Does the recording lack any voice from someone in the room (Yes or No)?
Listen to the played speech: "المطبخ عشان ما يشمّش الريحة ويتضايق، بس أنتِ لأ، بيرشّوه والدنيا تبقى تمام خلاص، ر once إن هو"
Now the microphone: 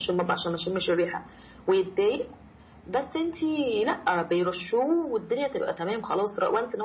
Yes